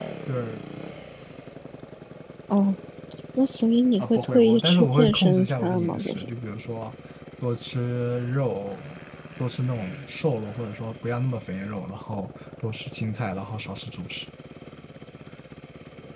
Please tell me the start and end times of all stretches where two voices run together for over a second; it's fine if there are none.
4.0-6.3

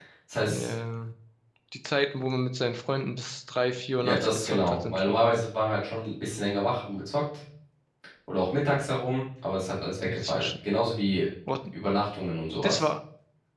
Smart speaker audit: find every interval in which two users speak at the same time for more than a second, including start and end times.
4.0-5.4

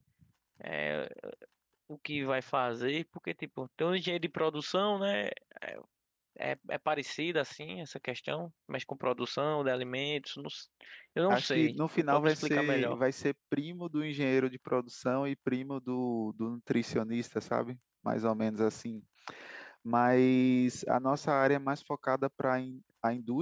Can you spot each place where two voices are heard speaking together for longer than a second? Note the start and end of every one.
11.3-13.0

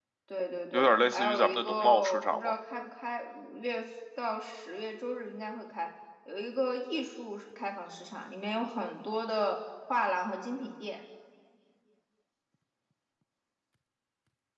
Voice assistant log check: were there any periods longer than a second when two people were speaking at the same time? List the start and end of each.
0.7-2.5

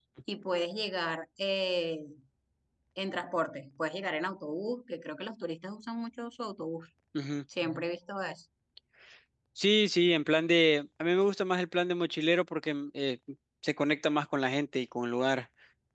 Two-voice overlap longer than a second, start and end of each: none

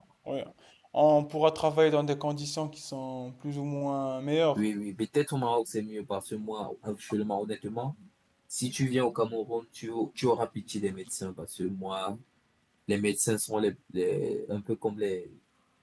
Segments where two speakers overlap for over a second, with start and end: none

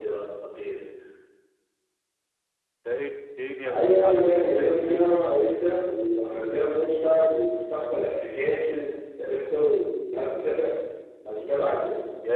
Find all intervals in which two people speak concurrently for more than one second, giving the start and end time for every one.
3.6-5.4

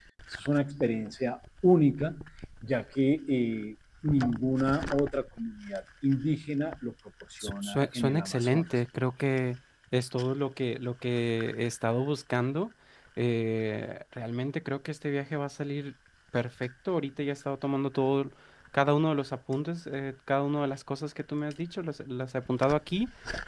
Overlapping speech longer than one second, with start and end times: 7.4-8.7

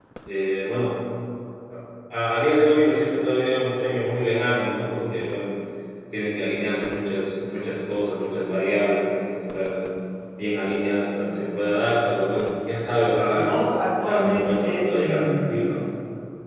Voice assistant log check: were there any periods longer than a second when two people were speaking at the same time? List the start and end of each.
14.0-15.6

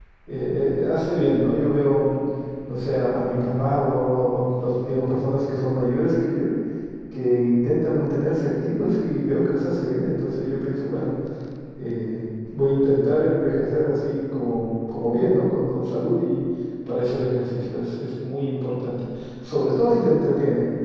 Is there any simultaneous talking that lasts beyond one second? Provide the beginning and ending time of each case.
none

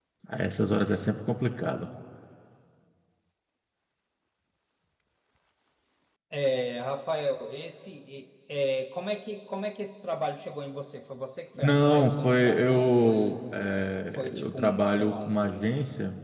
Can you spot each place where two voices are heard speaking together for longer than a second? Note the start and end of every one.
11.6-13.4, 14.1-15.5

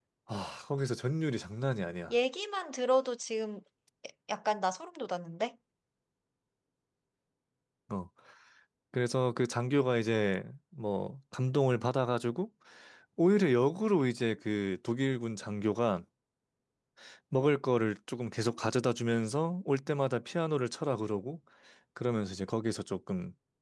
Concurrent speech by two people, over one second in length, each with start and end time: none

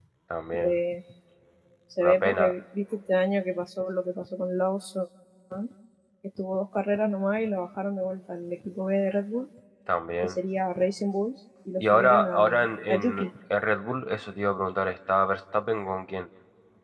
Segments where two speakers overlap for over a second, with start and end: 11.8-13.3

